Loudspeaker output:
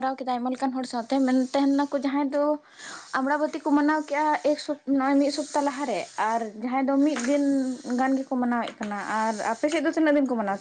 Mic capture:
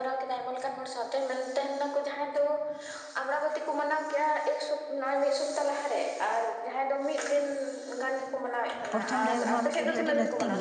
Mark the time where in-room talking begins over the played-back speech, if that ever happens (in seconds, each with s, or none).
8.9 s